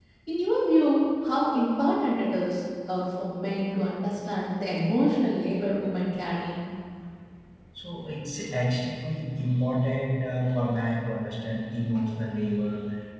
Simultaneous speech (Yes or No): No